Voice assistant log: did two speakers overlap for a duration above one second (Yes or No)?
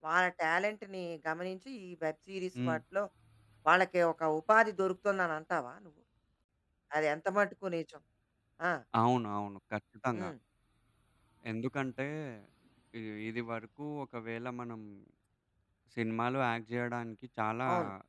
No